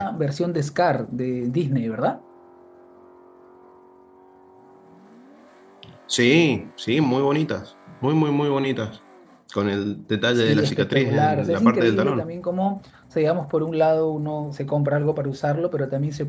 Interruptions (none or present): present